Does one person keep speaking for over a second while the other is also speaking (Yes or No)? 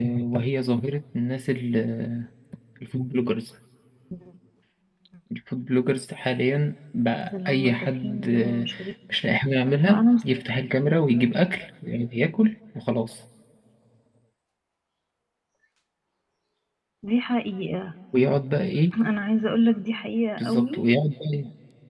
Yes